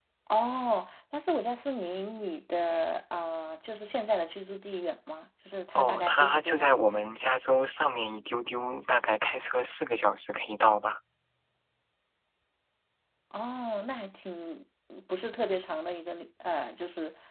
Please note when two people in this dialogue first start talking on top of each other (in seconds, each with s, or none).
5.8 s